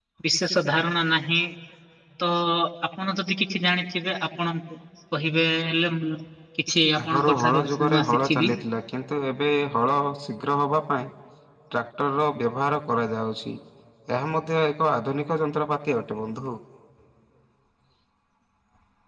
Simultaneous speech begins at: 7.0 s

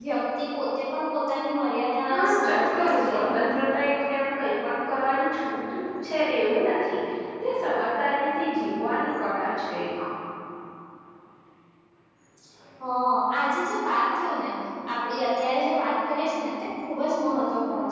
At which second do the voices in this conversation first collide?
2.1 s

